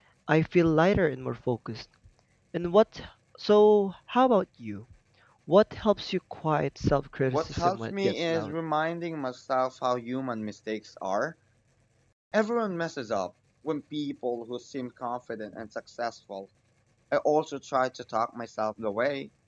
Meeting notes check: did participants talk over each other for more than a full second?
Yes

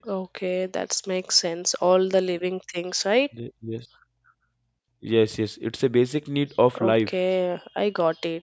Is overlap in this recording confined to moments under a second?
Yes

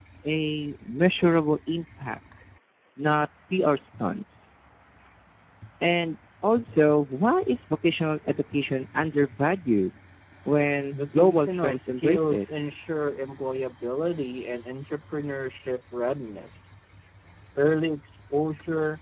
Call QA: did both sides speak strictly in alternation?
No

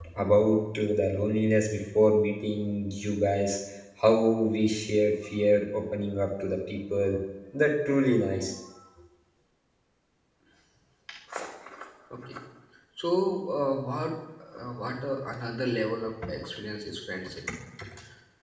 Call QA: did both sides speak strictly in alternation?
Yes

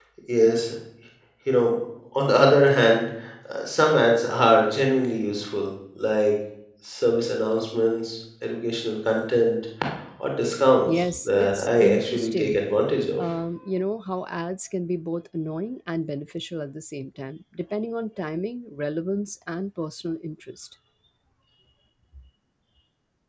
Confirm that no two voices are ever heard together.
No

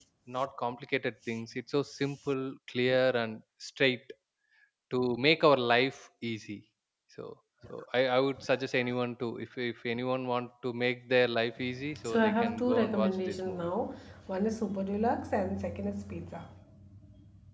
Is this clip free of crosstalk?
No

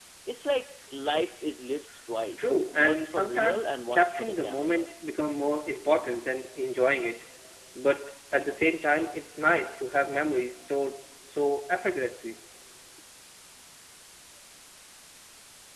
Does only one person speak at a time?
No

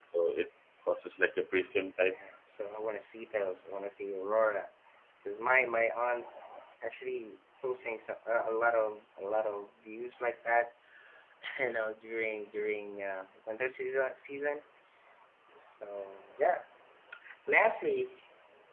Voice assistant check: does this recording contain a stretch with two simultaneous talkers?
No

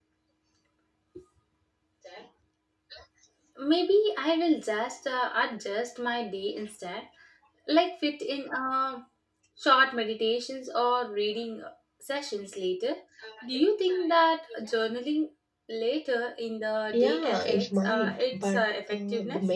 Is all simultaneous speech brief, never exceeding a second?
No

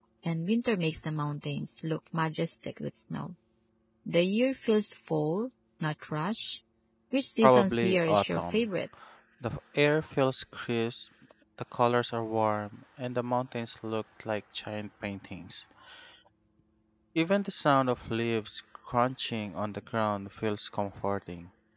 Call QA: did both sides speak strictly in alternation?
No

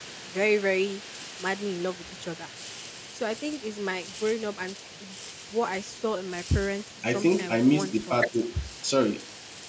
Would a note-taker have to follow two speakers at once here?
Yes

